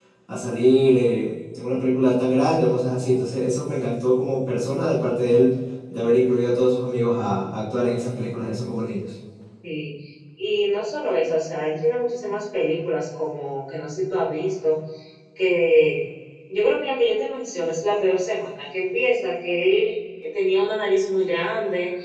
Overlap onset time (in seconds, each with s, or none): none